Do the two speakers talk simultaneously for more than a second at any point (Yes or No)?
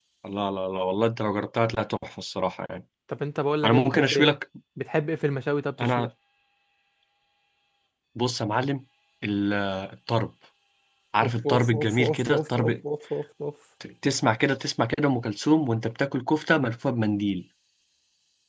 Yes